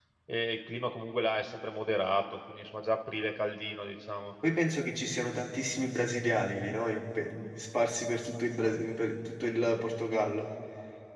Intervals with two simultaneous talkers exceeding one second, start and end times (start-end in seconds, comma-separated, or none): none